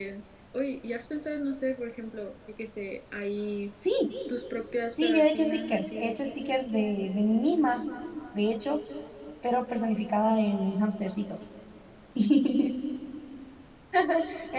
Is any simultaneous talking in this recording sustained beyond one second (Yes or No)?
Yes